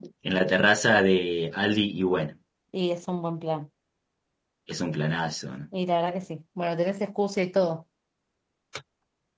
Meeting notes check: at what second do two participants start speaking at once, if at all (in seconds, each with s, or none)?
none